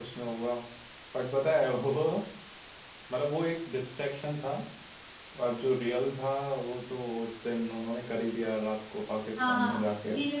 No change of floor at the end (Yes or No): No